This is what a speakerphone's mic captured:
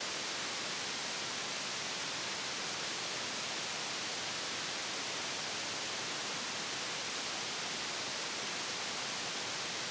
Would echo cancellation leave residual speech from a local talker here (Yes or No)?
No